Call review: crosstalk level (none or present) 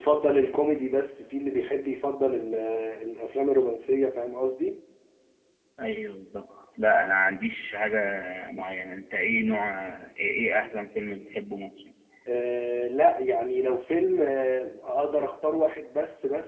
none